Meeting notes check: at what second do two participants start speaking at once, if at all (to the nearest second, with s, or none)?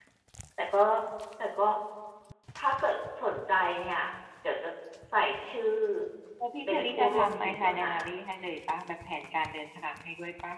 7 s